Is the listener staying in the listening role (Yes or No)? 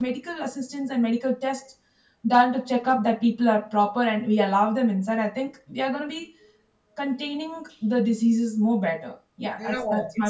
No